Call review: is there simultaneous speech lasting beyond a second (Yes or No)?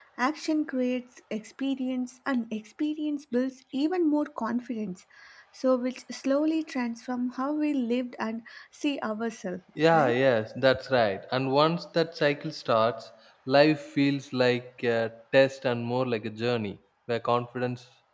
No